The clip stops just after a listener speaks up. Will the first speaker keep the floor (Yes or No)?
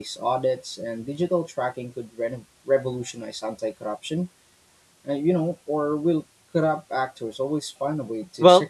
No